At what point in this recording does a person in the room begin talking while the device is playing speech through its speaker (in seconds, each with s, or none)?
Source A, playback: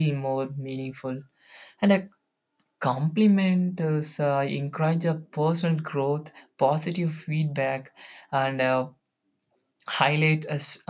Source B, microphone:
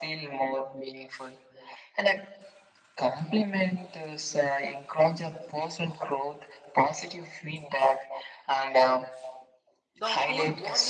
9.9 s